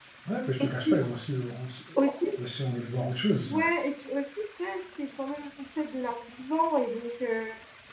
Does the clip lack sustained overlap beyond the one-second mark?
Yes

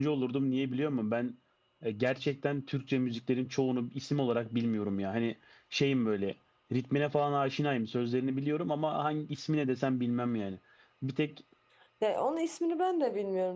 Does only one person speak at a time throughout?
Yes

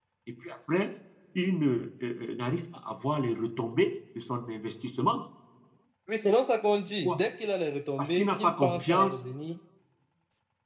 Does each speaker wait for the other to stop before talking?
No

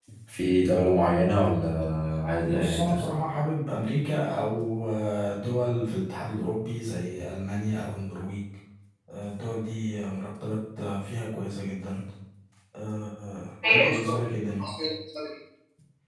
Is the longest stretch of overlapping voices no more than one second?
Yes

